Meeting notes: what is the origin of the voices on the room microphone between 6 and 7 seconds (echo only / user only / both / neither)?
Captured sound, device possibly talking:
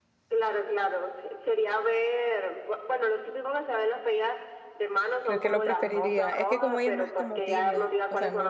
both